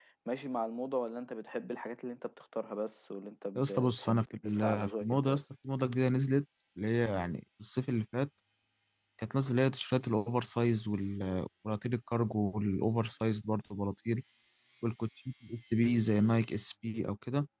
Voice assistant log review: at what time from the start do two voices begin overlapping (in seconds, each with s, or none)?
3.6 s